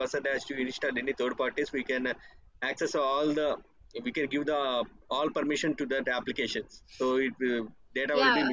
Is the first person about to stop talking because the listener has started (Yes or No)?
Yes